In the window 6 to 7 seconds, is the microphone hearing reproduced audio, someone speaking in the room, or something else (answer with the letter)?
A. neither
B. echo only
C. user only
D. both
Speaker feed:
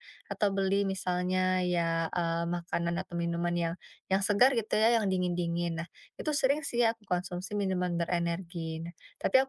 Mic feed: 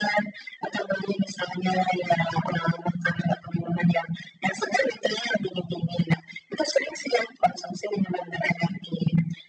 B